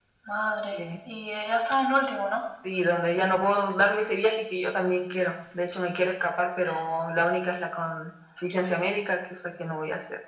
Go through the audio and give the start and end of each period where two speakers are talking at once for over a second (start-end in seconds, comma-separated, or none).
none